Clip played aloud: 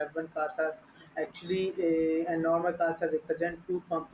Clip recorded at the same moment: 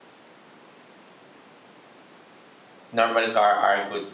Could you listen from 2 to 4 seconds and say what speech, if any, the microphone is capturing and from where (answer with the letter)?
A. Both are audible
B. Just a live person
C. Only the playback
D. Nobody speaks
B